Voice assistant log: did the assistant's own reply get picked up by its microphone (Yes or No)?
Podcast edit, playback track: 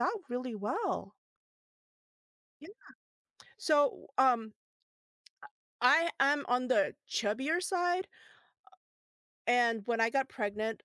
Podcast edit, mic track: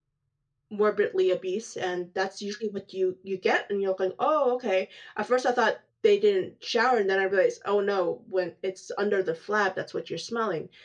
No